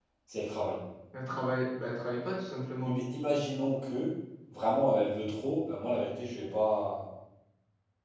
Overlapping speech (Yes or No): No